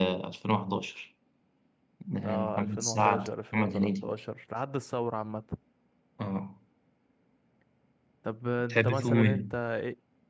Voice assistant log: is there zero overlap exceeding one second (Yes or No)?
No